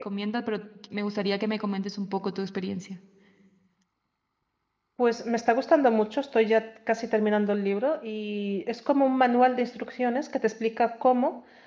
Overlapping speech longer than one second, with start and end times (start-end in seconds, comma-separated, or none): none